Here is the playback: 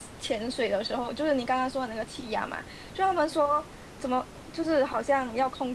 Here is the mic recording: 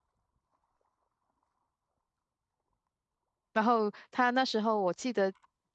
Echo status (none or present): none